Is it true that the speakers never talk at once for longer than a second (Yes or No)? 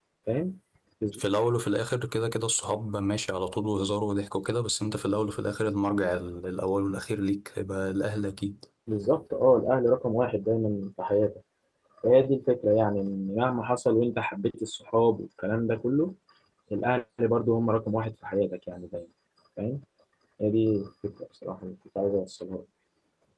Yes